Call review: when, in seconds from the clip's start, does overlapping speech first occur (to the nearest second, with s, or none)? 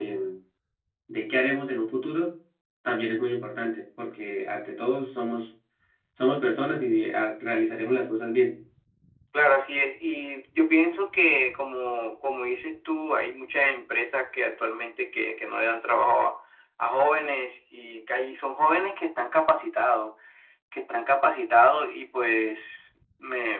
none